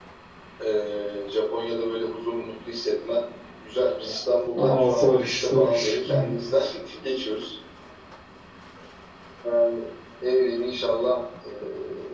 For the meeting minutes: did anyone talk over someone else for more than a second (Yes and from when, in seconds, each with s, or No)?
Yes, from 4.5 s